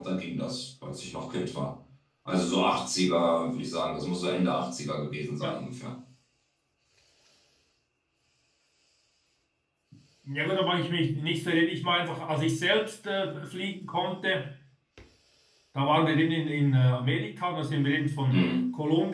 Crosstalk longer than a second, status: none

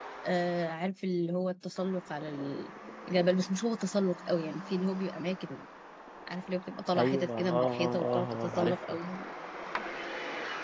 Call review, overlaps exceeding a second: present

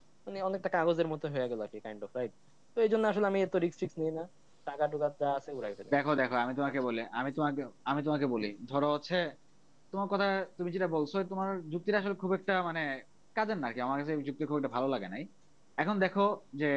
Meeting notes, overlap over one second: none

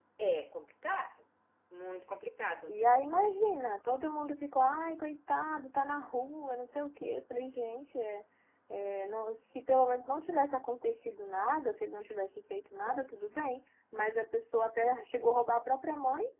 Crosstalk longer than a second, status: none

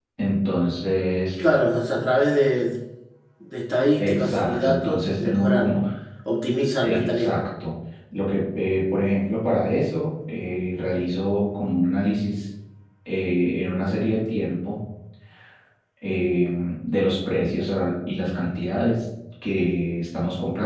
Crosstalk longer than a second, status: present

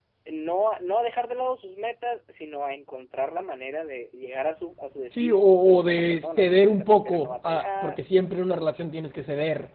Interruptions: present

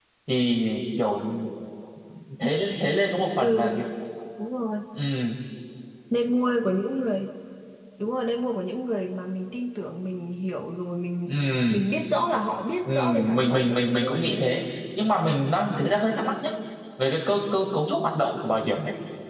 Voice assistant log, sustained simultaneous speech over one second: present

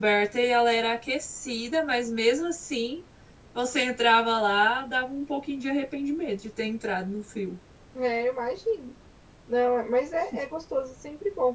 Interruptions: none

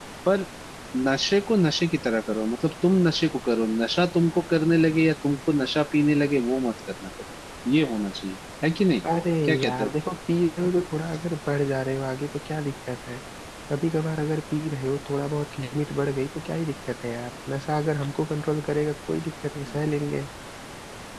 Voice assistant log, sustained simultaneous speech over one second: none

